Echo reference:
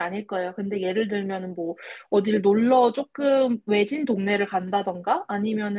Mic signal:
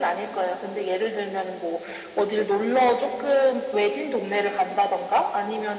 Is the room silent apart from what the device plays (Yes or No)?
Yes